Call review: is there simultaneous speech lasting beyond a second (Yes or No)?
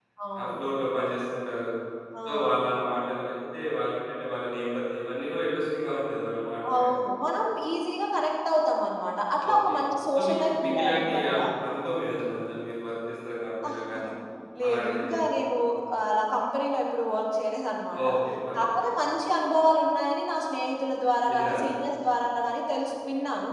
Yes